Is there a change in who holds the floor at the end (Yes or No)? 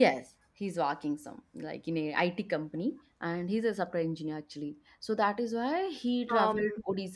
No